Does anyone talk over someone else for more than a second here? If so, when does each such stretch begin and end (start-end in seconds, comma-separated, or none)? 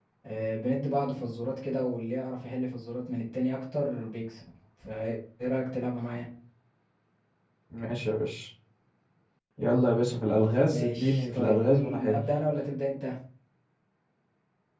10.7-12.2